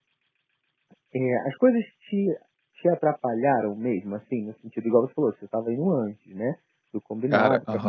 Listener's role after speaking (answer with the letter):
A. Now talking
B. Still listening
B